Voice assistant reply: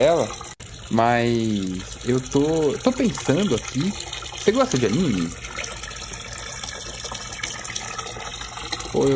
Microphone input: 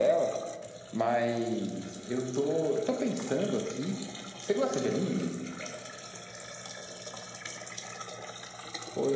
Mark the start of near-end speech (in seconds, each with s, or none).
none